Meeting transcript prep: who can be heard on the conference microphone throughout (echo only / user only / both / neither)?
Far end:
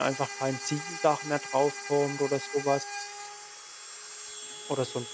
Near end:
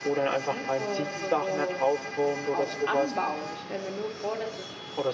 both